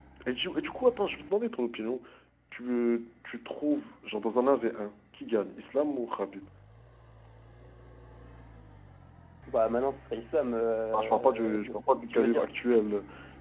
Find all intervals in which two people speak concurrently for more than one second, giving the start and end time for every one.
10.9-12.5

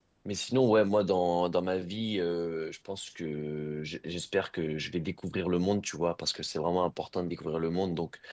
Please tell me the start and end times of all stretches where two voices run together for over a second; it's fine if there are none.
none

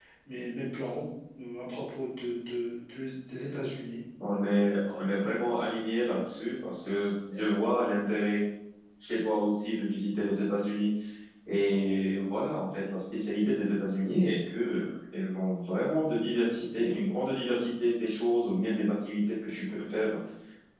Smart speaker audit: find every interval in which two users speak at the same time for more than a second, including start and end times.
none

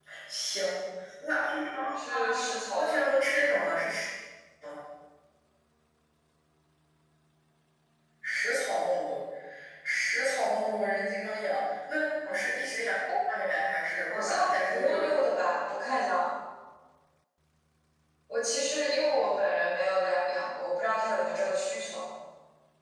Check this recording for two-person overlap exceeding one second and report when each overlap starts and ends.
14.1-15.3

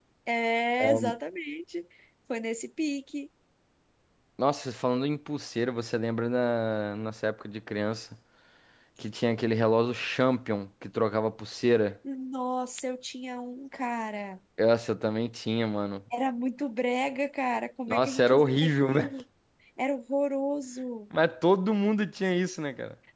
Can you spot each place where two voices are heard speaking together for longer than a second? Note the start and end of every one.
17.9-19.1

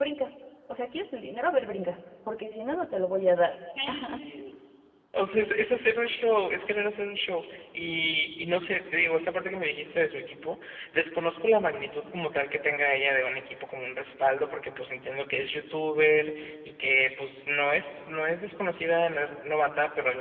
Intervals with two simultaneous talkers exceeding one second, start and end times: none

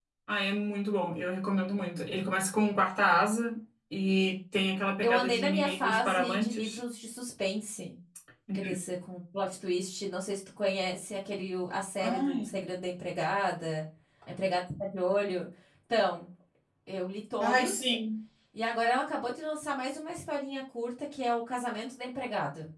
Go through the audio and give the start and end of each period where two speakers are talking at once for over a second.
5.0-6.8

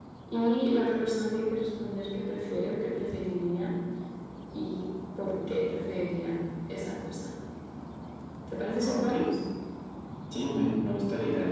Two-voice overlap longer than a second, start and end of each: none

